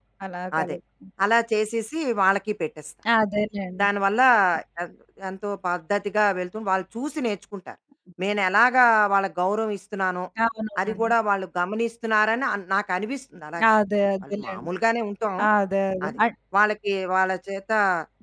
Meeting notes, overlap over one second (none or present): none